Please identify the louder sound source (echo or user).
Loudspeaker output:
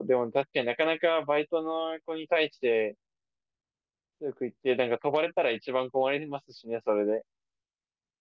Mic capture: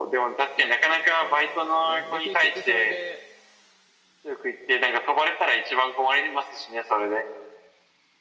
echo